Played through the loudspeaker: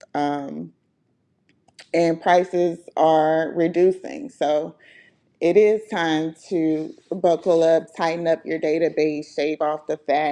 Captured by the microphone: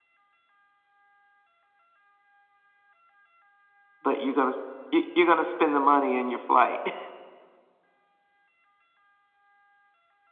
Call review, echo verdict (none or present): none